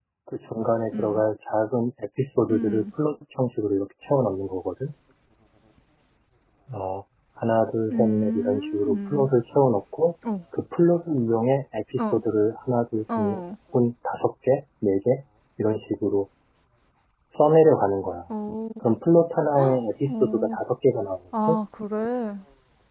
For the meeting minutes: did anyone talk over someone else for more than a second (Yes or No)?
Yes